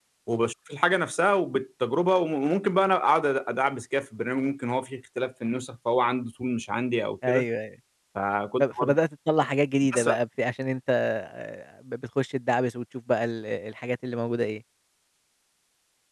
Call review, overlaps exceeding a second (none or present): none